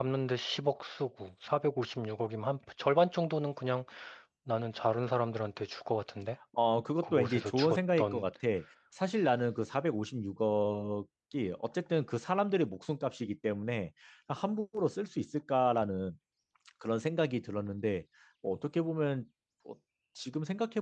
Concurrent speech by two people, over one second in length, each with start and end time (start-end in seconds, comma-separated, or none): 7.0-8.2